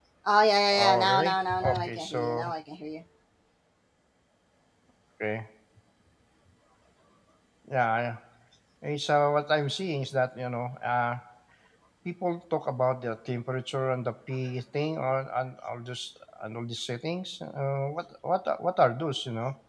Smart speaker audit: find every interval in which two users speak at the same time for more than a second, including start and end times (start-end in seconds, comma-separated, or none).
0.7-2.5